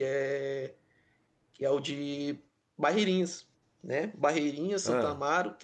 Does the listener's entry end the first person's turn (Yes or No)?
No